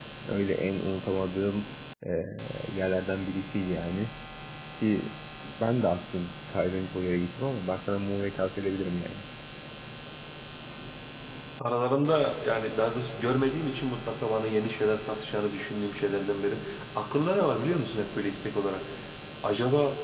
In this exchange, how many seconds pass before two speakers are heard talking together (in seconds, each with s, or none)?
none